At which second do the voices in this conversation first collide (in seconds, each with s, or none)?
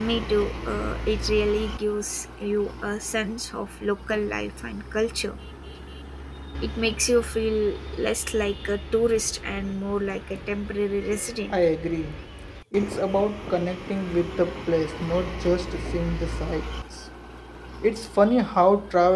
none